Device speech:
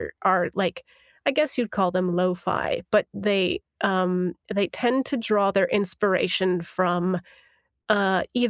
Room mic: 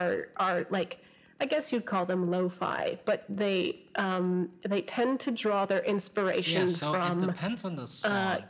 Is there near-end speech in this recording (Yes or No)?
Yes